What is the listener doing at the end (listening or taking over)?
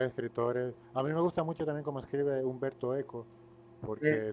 listening